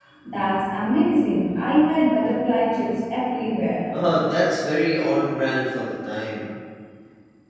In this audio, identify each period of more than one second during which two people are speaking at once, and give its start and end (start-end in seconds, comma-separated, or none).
none